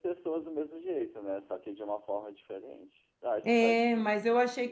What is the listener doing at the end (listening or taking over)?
taking over